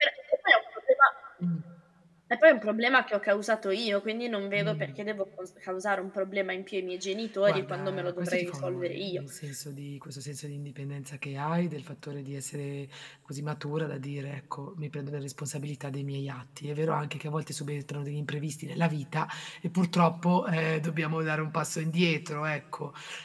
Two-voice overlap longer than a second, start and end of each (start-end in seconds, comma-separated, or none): 7.5-9.2